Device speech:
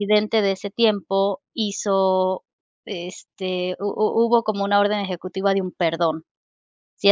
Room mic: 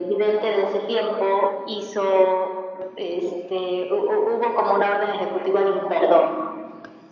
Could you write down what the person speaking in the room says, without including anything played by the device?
none

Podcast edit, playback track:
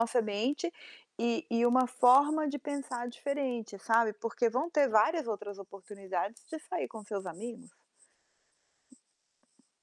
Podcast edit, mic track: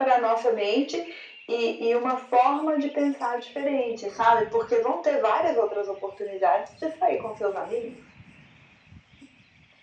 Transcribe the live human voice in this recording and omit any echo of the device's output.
none

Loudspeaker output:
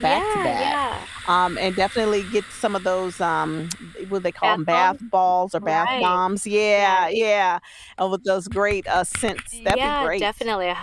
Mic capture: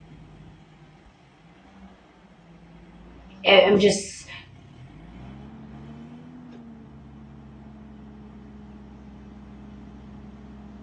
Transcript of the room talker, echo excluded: eh, I'm just,

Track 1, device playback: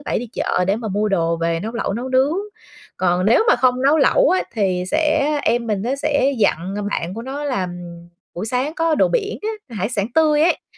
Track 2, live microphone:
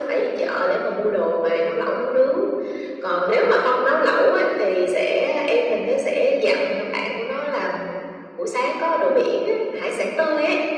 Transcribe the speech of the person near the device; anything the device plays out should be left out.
none

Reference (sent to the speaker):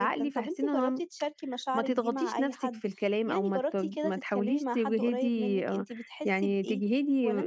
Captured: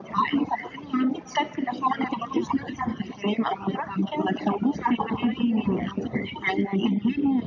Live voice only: none

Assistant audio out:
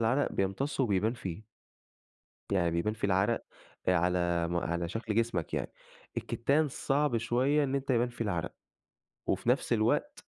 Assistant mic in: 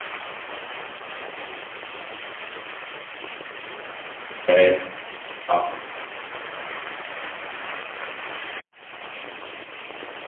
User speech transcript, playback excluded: تمام. آه.

